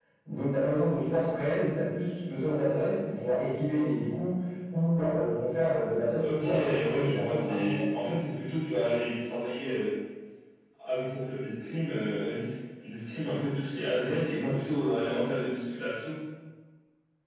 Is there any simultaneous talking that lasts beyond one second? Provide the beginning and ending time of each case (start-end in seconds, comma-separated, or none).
6.2-7.8